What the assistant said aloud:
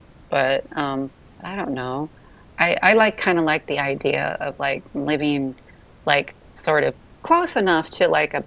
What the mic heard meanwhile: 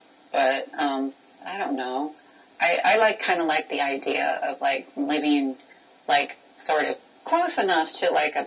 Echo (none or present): present